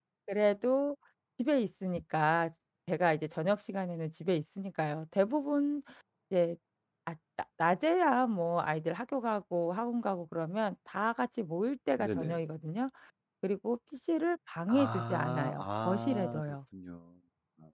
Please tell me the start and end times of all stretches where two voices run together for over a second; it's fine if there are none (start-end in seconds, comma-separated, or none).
14.7-16.4